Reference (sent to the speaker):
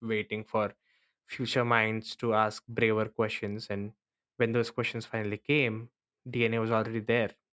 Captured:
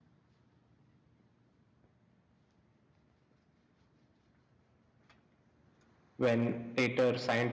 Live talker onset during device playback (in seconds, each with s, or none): 6.2 s